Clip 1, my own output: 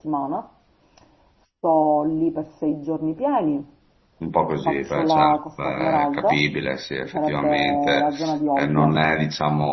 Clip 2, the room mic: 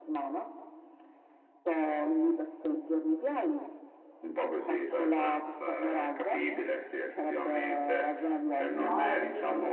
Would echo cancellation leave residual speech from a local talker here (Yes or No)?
Yes